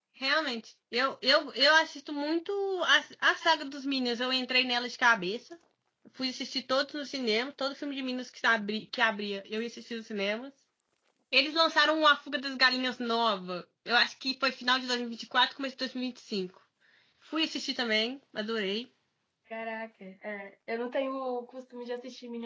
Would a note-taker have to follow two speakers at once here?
No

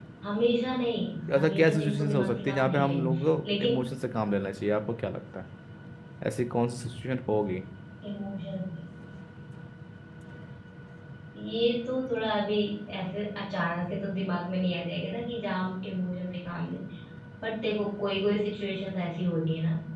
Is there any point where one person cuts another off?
Yes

